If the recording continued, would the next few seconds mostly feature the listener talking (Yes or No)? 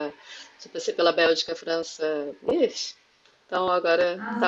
Yes